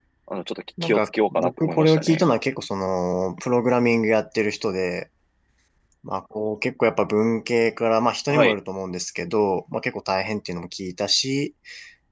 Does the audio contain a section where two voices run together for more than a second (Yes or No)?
Yes